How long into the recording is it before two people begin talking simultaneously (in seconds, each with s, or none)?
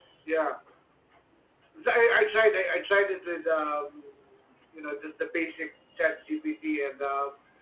none